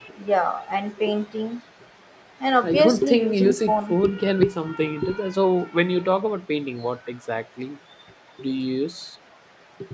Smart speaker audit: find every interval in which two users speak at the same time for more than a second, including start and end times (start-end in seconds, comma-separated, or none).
2.6-4.0